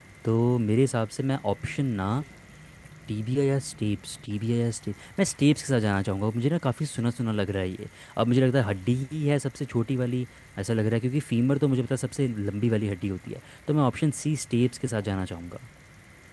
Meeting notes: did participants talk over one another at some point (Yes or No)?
No